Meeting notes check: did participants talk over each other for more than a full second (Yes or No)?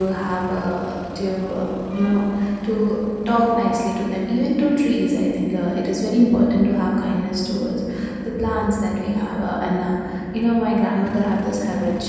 No